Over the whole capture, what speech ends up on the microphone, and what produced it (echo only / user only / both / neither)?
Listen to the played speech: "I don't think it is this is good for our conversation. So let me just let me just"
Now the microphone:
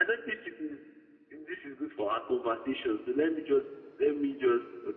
echo only